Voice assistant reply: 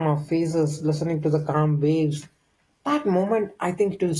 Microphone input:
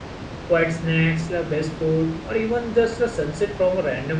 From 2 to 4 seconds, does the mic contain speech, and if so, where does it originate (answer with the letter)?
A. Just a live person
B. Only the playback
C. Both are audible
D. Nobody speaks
A